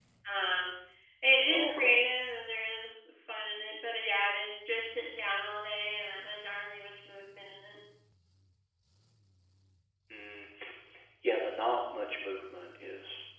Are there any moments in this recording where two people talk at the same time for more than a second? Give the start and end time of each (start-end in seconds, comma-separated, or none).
none